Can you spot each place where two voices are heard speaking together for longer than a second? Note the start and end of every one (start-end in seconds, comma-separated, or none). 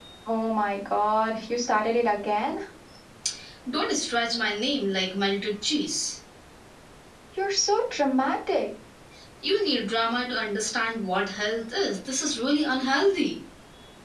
none